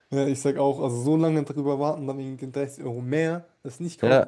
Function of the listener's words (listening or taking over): taking over